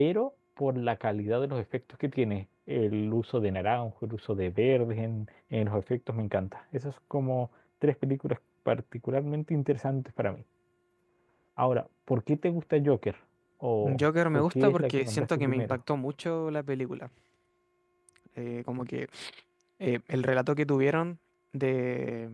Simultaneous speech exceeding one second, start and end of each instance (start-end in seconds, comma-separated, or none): 14.0-15.8